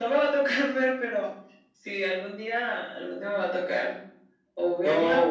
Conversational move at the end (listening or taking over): taking over